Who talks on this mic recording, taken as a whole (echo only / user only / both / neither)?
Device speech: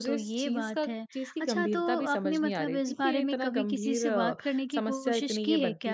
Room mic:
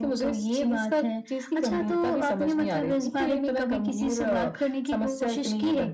echo only